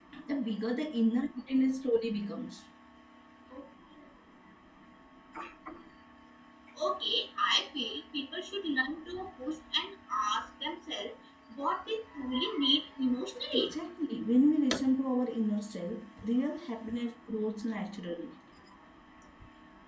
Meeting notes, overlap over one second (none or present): none